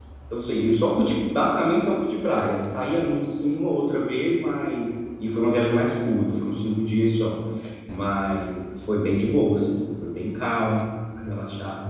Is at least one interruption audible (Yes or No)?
No